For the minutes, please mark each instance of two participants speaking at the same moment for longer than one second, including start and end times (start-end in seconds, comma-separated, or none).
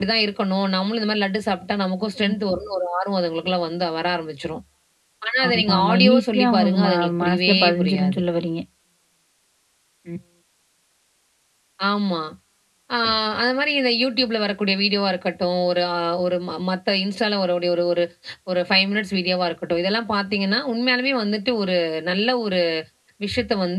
5.5-8.2